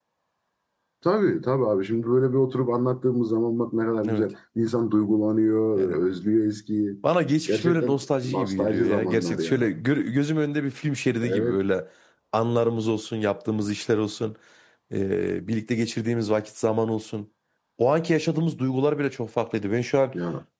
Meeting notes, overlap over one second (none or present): present